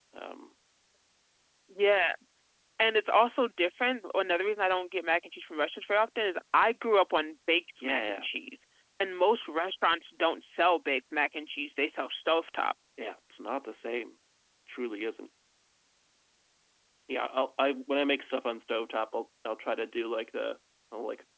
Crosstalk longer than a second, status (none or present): none